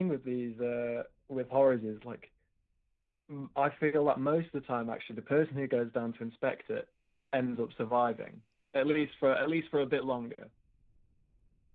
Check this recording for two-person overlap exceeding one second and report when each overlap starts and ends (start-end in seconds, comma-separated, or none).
none